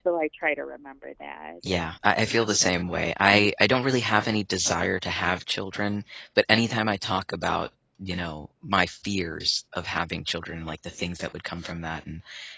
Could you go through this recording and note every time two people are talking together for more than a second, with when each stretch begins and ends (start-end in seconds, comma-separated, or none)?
none